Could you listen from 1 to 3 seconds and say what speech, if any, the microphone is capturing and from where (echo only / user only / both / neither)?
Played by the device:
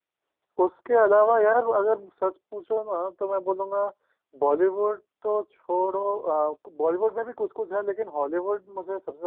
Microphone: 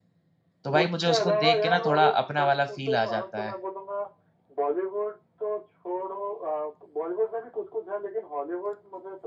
both